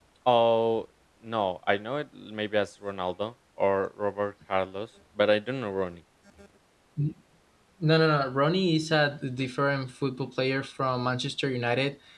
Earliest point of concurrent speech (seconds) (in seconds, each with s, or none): none